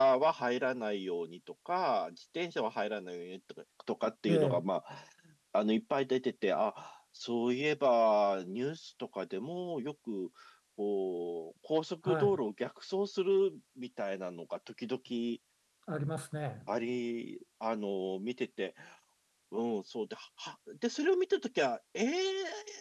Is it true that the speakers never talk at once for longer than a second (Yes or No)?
Yes